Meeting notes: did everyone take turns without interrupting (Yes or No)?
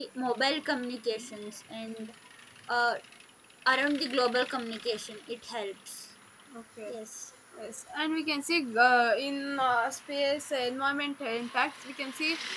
Yes